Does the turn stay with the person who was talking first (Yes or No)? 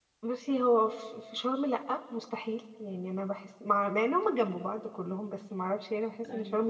Yes